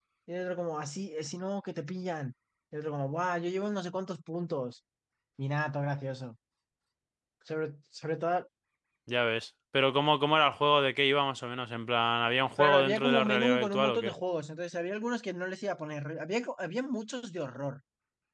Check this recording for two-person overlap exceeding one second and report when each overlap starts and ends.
12.6-14.1

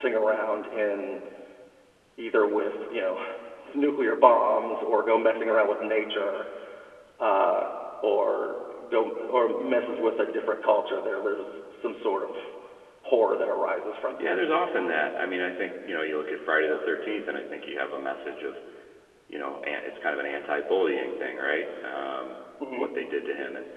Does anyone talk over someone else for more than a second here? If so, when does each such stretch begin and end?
none

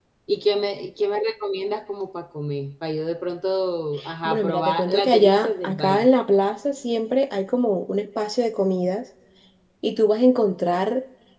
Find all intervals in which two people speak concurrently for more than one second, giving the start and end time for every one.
4.2-6.1

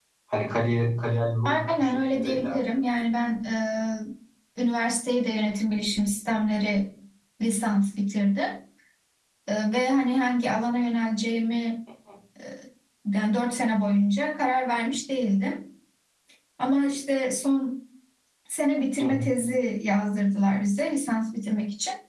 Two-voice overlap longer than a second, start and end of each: 1.4-2.7

